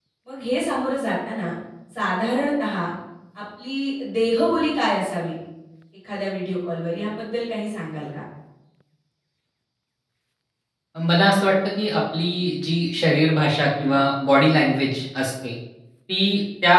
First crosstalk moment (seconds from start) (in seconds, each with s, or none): none